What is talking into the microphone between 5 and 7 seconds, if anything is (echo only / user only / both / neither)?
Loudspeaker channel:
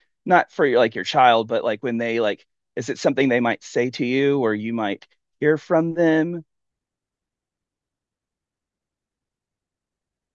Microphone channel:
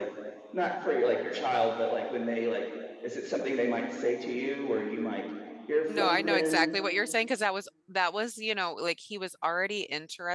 both